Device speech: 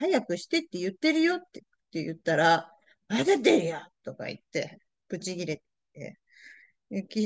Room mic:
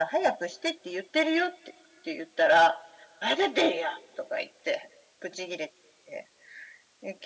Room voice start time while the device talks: none

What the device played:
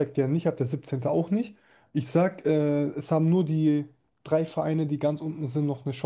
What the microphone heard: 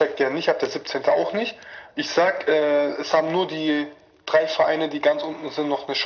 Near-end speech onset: none

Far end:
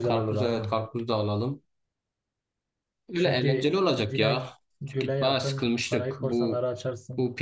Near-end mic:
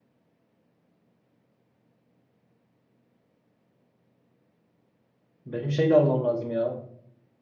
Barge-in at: 5.5 s

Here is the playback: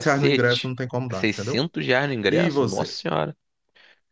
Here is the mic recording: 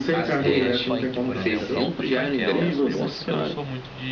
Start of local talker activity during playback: 0.4 s

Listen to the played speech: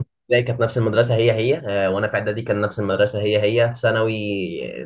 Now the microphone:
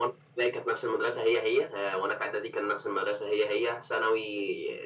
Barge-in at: none

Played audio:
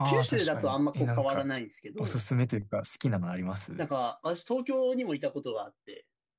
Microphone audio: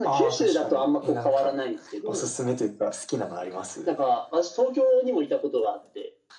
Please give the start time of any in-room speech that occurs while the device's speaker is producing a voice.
none

